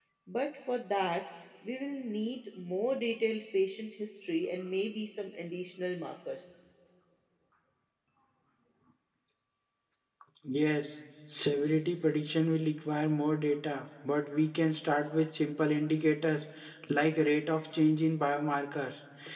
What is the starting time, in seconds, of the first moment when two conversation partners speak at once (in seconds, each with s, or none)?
none